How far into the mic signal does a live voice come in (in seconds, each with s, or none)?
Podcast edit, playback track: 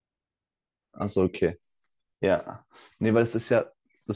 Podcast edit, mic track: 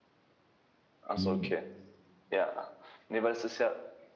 1.2 s